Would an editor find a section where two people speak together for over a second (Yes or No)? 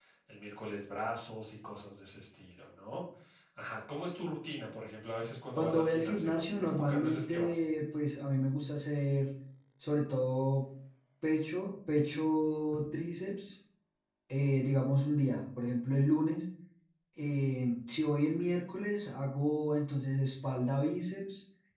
Yes